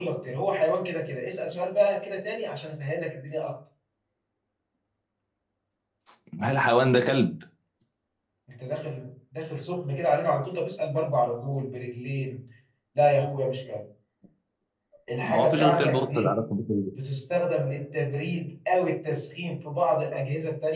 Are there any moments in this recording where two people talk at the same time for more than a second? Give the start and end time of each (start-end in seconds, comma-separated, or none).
15.2-16.4